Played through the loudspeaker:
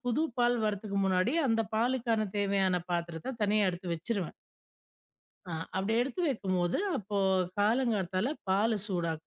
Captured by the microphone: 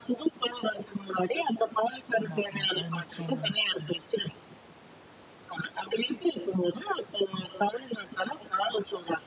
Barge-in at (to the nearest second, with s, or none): 2 s